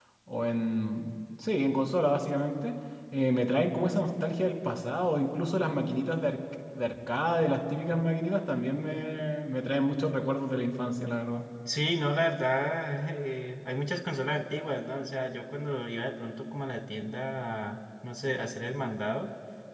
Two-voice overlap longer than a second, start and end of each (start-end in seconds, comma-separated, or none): none